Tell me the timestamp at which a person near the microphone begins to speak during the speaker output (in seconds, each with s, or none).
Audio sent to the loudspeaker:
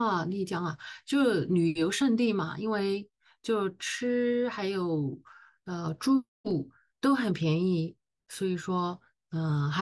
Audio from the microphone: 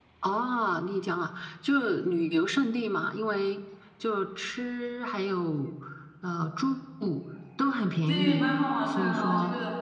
8.0 s